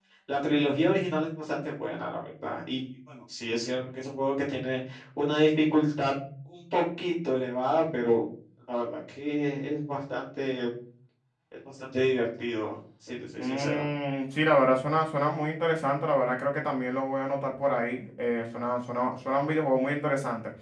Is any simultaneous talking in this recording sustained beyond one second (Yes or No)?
No